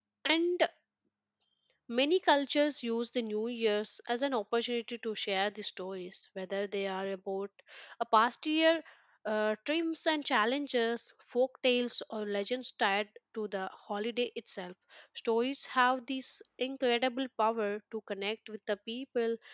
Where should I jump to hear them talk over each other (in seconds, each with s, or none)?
none